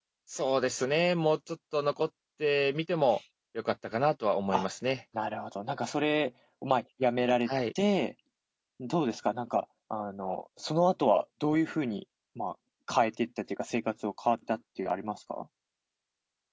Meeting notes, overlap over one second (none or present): none